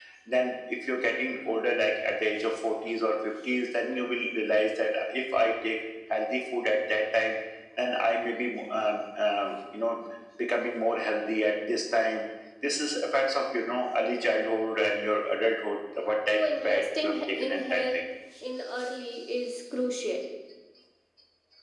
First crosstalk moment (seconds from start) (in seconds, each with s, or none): 16.3 s